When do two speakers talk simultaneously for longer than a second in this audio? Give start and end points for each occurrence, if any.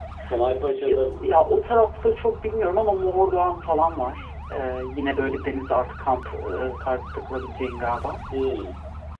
none

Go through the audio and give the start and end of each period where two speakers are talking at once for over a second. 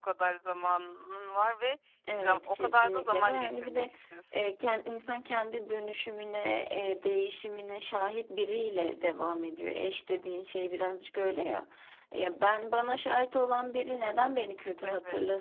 2.2-3.8

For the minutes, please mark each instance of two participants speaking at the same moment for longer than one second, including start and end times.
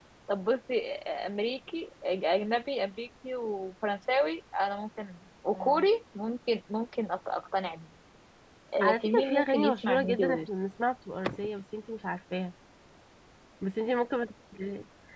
8.8-10.5

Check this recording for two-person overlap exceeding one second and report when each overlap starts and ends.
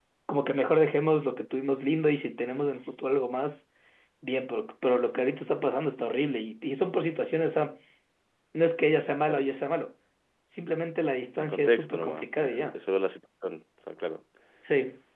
11.4-12.8

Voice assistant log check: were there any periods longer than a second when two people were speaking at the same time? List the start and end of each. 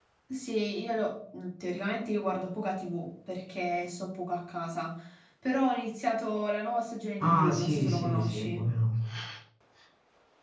7.2-8.7

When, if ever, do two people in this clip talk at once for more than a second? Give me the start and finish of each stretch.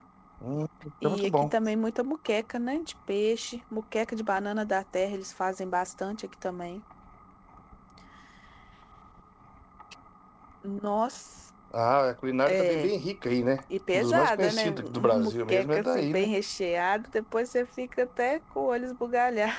13.9-16.3

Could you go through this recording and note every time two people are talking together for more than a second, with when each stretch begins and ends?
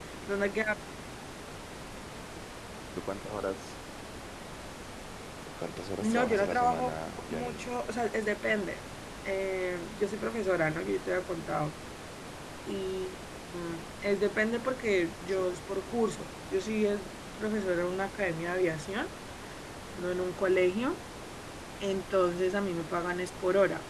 6.0-7.6

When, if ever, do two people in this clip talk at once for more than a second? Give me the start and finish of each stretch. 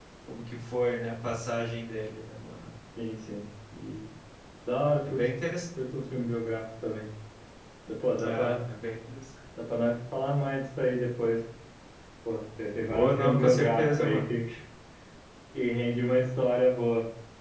12.9-14.3

